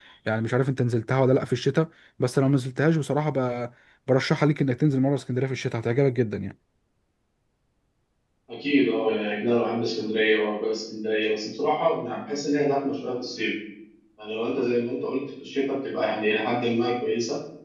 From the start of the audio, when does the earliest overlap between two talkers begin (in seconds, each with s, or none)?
none